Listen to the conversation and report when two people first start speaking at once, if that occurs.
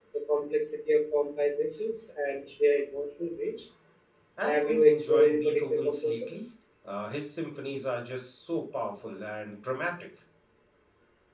4.4 s

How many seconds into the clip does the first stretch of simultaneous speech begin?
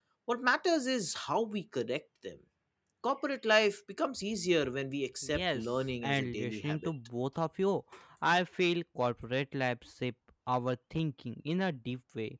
5.2 s

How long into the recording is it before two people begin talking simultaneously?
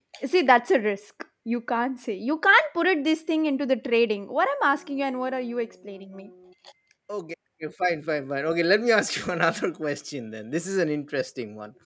none

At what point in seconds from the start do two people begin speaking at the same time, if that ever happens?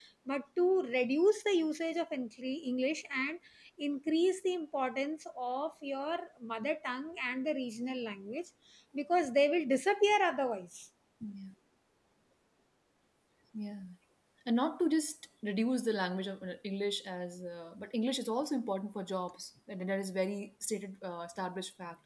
none

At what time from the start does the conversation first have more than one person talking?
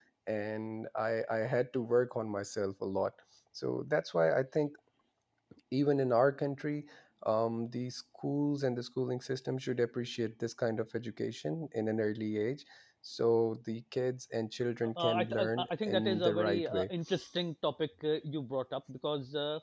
15.0 s

